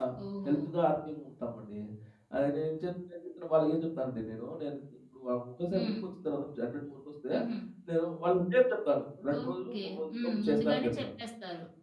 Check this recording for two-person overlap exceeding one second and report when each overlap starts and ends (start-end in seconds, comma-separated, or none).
9.4-10.9